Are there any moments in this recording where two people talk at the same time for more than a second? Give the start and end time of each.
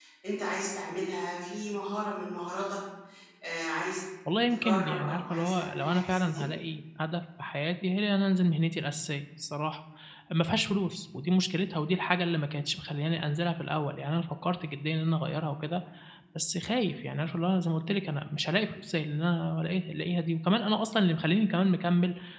4.5-6.5

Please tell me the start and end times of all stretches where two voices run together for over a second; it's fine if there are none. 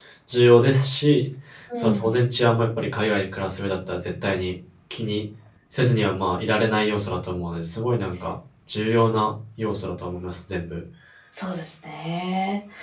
none

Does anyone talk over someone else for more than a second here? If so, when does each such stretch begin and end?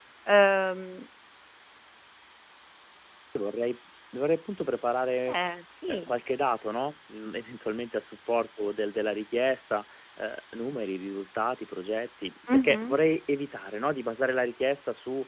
none

